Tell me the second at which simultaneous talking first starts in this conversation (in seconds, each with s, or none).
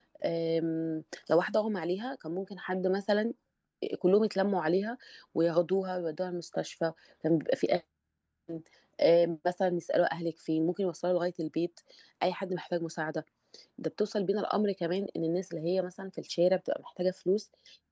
none